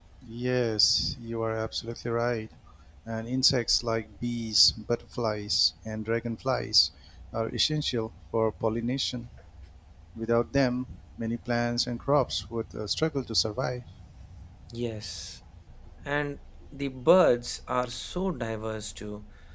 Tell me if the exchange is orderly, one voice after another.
Yes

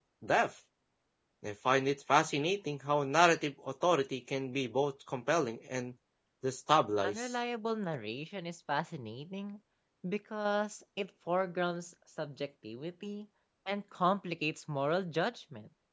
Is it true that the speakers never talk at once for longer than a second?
Yes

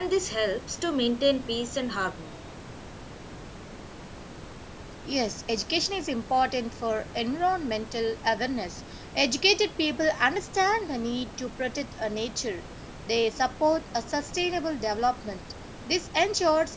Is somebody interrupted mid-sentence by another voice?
No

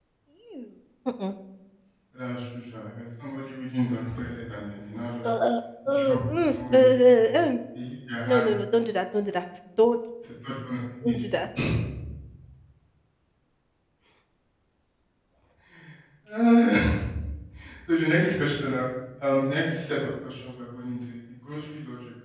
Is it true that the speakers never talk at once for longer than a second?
No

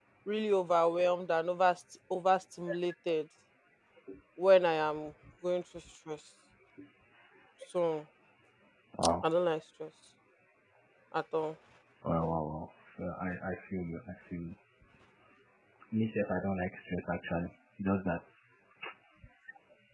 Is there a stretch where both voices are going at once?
No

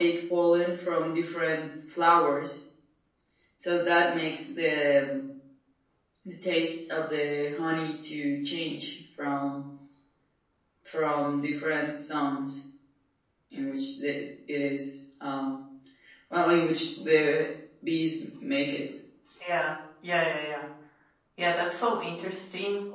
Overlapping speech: No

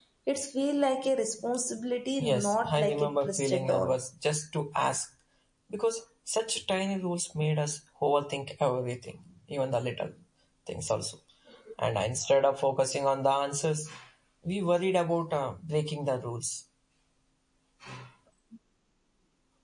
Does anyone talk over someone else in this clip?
Yes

